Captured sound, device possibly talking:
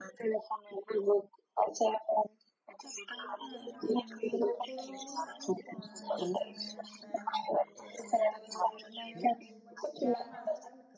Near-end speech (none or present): present